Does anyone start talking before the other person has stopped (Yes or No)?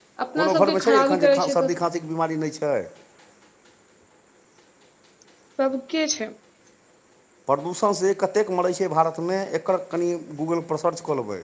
Yes